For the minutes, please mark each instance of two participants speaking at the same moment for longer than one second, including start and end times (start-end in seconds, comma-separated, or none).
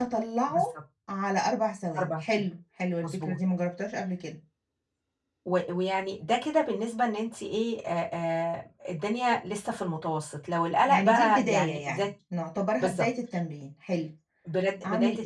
10.9-12.1